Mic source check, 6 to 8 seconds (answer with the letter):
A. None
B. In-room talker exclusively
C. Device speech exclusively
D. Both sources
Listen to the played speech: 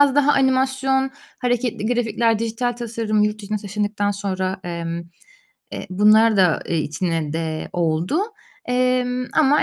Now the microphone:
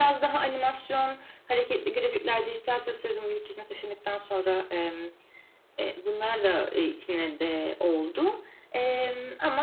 C